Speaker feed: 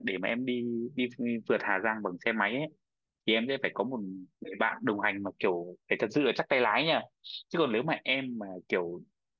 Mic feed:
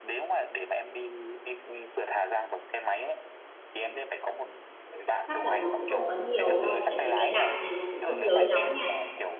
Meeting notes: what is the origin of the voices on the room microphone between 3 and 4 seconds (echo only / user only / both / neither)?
echo only